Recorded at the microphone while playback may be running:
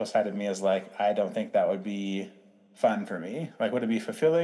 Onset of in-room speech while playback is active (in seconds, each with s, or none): none